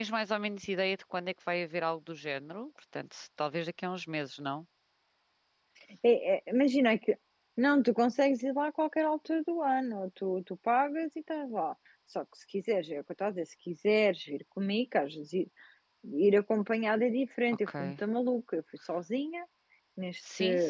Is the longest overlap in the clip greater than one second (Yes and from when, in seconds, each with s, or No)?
No